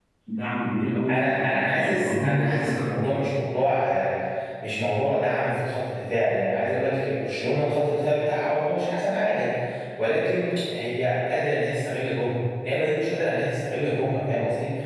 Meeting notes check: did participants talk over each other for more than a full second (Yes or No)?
Yes